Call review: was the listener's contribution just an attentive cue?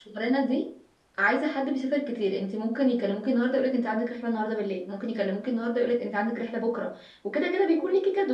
Yes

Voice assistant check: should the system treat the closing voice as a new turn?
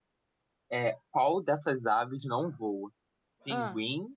No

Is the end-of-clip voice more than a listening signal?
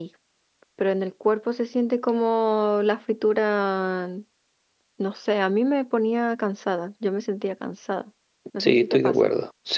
Yes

